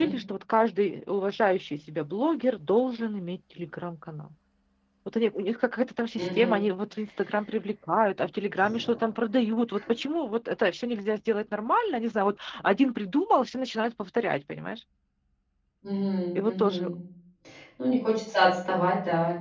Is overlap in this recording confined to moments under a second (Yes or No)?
Yes